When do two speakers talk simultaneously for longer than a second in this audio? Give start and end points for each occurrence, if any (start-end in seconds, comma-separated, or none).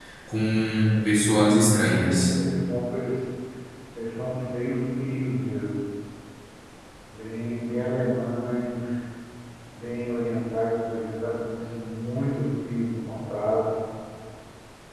1.1-2.3